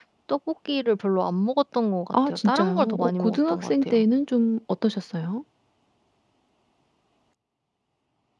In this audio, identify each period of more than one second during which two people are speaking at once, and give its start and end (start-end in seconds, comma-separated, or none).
2.1-4.0